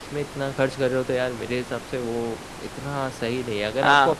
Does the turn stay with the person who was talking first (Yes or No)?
Yes